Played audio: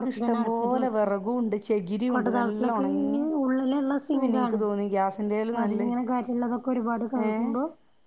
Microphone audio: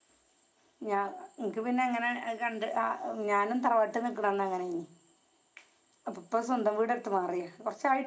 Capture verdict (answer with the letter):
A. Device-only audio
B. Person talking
B